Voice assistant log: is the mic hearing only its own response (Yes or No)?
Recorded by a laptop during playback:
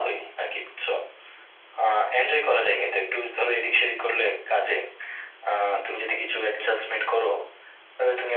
Yes